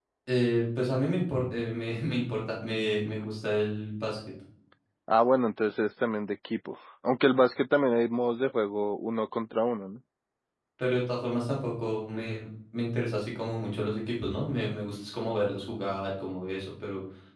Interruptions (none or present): none